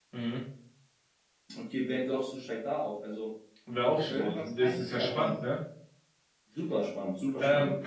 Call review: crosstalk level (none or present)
present